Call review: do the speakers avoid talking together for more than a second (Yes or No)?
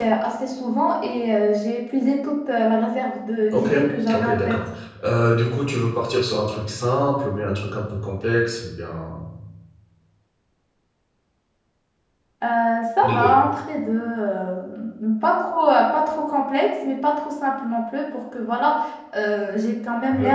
Yes